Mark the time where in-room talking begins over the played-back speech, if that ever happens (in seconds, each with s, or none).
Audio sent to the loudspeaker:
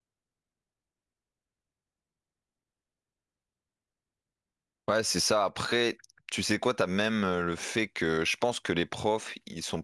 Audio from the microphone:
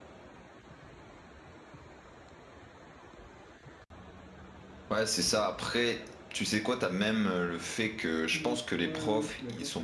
8.3 s